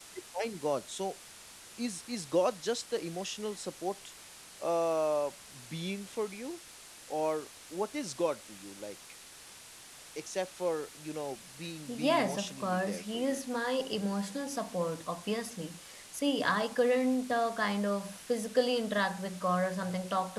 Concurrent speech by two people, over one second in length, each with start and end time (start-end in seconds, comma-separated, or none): 11.9-13.4